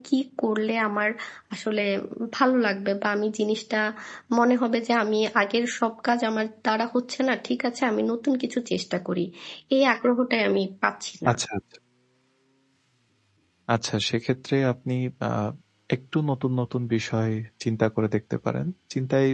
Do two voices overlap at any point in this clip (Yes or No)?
No